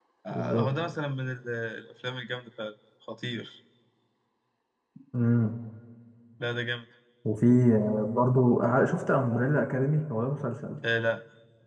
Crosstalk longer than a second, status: none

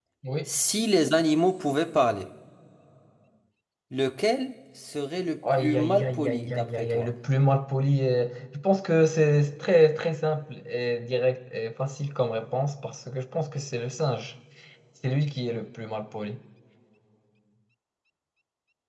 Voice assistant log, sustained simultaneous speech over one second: present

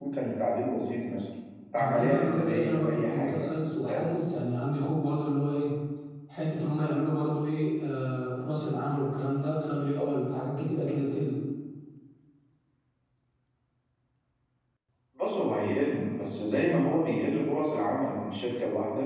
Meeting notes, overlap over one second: present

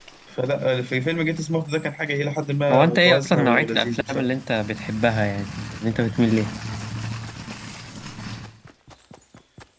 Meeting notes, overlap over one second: present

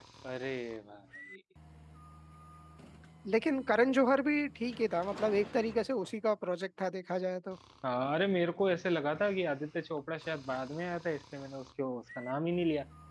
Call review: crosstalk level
none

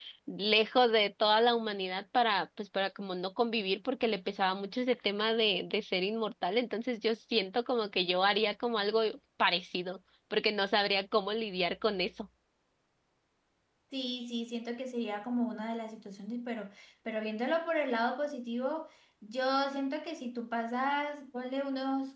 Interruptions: none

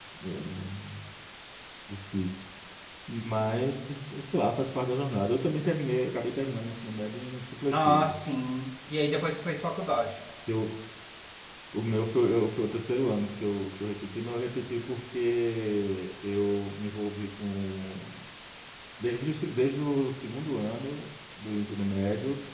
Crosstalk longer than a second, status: none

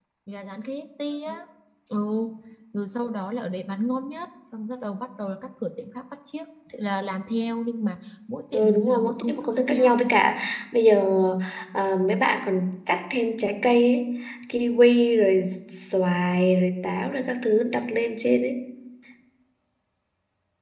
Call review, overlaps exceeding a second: present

